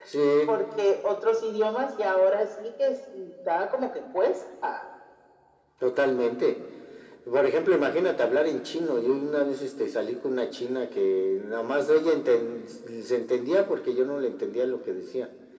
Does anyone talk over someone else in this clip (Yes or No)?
No